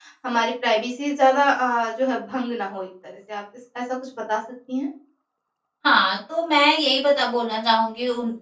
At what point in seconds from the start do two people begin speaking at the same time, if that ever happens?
none

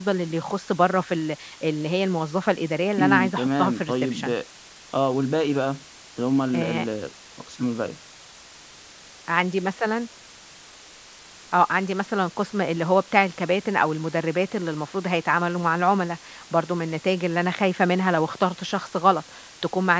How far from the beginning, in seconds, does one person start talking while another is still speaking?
3 s

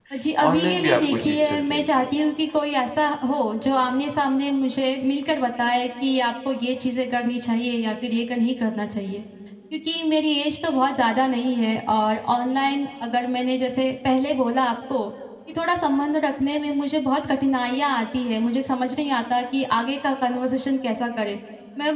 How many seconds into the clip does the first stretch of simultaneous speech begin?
1 s

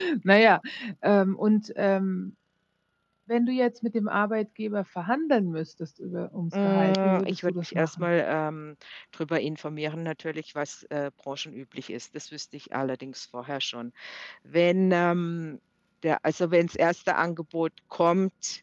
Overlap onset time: 7 s

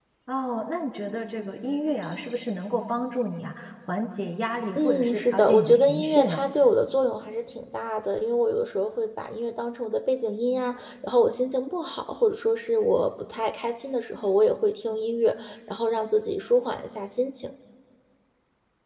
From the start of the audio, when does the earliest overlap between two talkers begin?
5 s

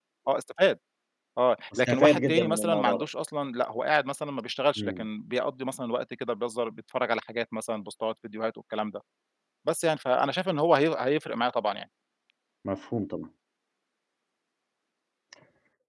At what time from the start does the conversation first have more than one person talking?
2 s

